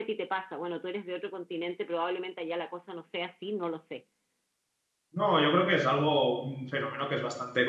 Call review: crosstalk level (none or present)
none